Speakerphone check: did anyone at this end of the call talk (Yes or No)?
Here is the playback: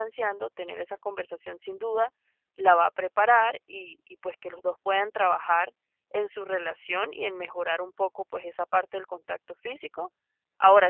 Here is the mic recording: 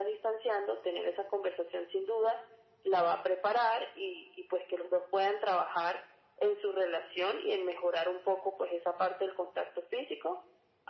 No